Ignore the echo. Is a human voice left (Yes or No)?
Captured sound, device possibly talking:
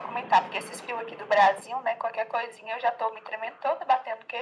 No